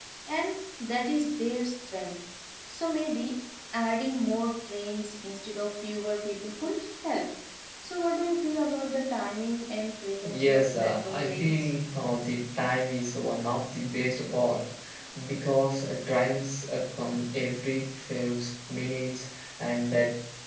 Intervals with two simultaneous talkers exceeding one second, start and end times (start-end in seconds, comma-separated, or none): 10.4-11.7